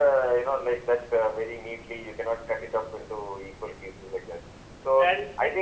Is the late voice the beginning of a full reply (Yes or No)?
No